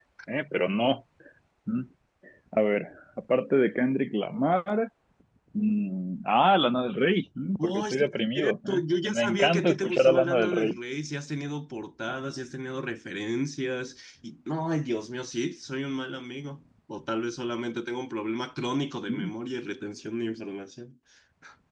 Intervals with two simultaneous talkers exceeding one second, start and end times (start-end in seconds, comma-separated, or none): 7.6-10.7